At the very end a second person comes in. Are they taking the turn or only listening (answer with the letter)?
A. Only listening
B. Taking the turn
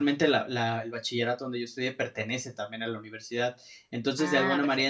A